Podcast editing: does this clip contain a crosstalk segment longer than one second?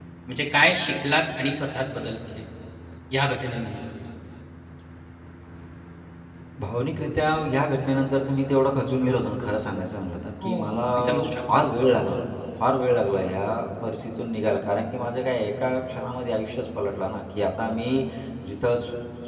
No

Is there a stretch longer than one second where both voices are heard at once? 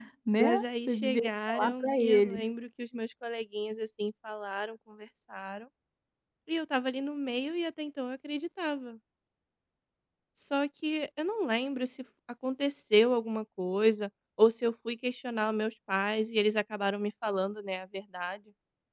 Yes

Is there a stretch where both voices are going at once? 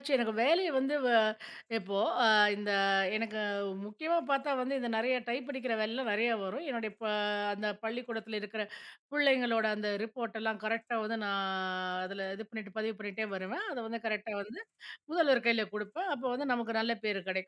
No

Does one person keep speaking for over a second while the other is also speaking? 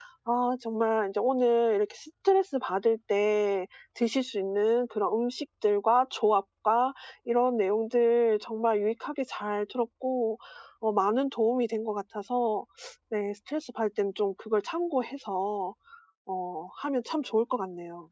No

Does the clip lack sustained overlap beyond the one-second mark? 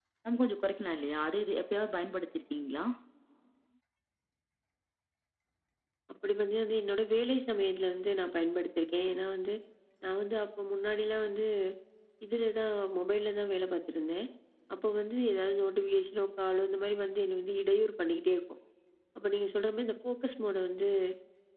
Yes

